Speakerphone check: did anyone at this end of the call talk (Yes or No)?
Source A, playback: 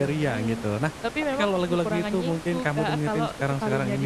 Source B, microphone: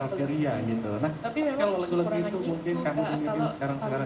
No